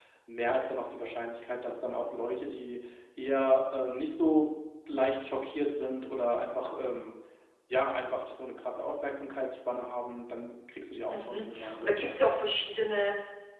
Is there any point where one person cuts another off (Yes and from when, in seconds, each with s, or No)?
Yes, from 11.1 s